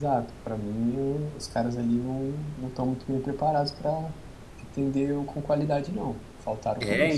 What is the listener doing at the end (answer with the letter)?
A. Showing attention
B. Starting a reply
B